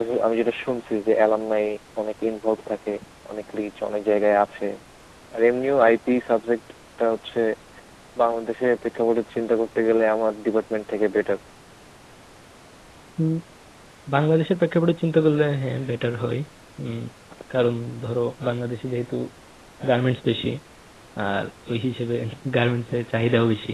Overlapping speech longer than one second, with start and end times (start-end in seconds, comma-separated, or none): none